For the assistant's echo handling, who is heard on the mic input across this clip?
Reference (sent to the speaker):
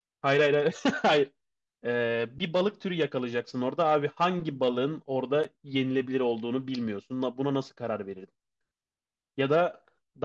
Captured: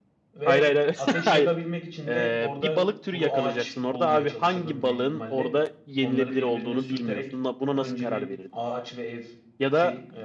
both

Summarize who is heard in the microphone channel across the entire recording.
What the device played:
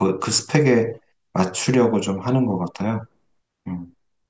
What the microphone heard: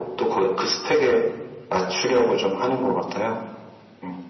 echo only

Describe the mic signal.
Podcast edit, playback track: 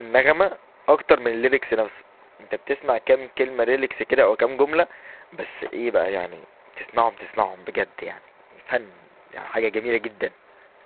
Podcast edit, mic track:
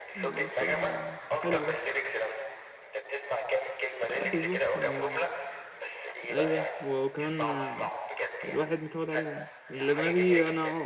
both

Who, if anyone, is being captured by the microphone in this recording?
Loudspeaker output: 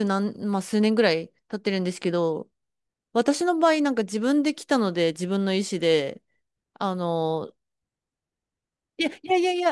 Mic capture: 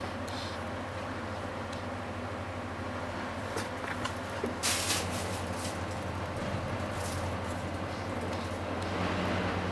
neither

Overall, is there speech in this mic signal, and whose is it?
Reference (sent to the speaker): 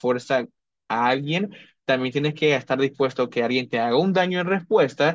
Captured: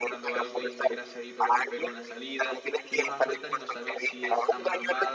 both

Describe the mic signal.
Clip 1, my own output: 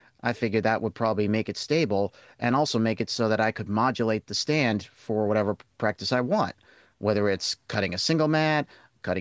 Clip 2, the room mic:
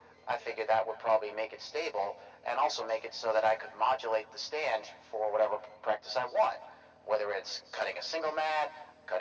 echo only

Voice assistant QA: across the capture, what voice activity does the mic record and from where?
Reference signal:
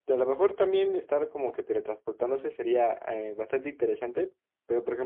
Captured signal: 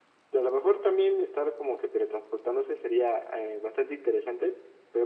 echo only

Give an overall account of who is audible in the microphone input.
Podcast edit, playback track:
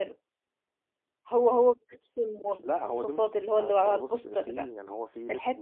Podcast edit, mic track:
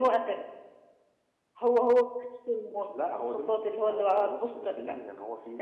echo only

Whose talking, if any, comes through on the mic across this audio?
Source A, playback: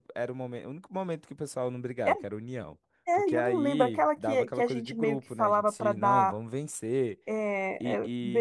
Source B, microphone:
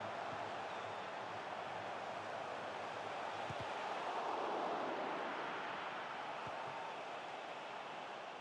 neither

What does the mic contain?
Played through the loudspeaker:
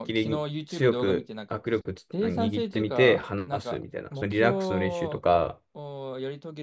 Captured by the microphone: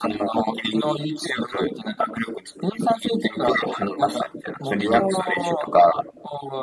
echo only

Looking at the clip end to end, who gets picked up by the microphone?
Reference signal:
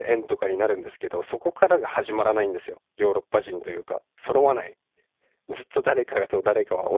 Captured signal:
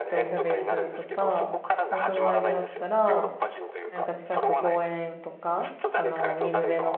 both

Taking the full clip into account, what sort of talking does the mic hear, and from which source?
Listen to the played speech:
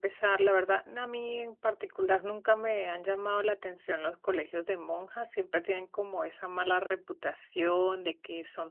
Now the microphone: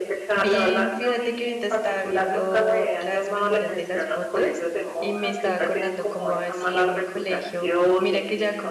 both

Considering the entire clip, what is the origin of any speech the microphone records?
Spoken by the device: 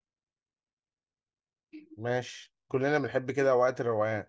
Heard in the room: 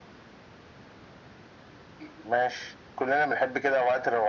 echo only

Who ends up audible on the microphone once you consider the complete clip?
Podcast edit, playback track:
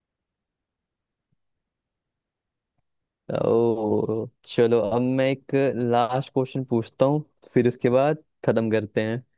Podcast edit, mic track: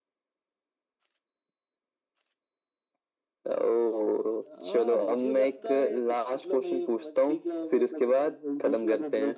both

